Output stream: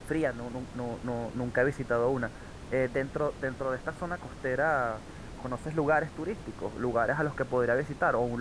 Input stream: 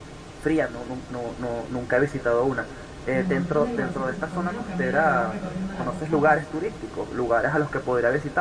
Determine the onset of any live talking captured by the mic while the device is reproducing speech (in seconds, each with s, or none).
3.1 s